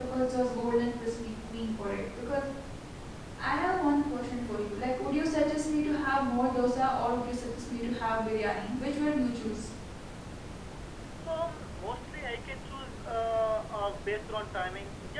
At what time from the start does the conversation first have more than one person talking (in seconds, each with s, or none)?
none